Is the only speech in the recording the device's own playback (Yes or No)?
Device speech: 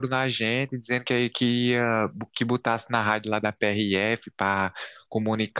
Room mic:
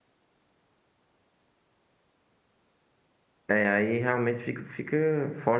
No